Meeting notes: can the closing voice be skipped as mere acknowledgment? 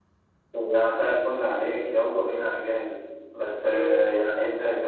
Yes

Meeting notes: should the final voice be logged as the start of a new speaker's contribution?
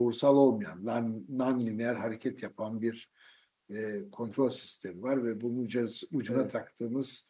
No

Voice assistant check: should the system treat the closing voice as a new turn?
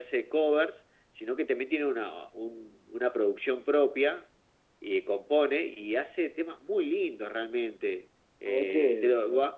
No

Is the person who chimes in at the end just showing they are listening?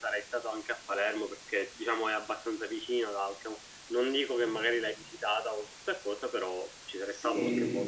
No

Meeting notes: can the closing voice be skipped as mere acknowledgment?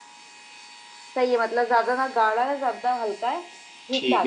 No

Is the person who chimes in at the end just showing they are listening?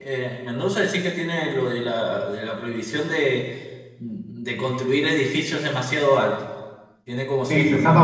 No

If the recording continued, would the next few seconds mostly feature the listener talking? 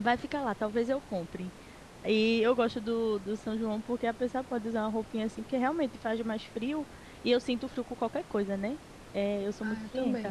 Yes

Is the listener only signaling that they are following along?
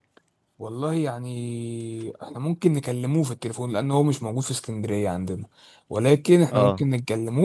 Yes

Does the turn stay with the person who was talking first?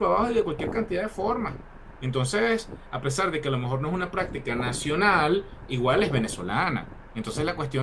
Yes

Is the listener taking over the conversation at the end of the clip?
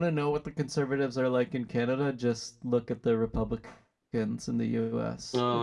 Yes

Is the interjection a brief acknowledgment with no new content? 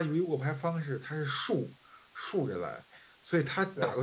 Yes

